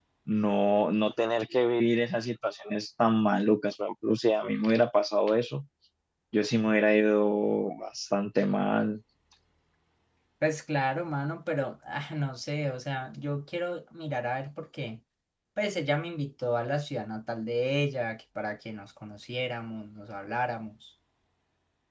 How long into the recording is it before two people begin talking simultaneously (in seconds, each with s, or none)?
none